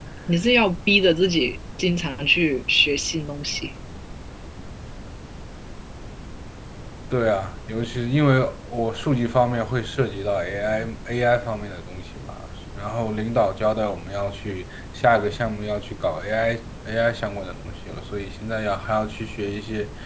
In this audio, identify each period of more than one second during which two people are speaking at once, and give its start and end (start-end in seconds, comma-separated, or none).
none